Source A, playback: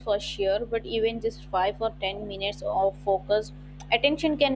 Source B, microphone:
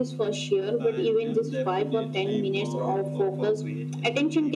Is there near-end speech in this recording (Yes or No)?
Yes